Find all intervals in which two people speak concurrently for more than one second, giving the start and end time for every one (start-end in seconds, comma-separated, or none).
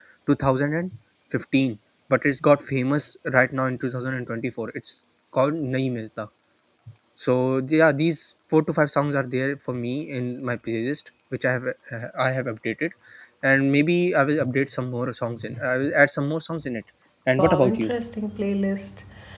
none